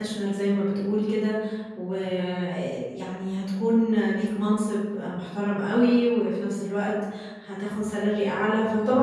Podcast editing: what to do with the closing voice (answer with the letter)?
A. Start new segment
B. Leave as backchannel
B